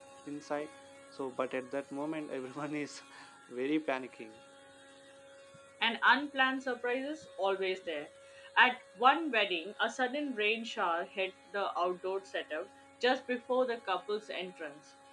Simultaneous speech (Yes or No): No